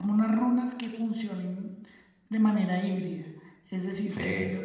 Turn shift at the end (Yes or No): No